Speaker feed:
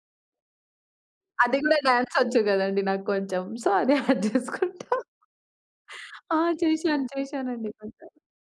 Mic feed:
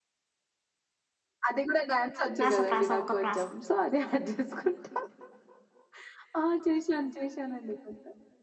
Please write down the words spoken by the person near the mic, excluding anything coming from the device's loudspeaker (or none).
ప్రాస ప్రాస ఒక ప్రాస.